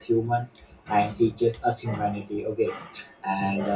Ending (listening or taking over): listening